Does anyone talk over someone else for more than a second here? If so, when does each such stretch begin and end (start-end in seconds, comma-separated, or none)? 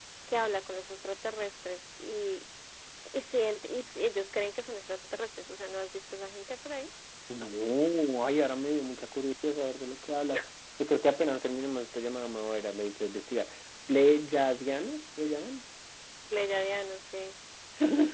none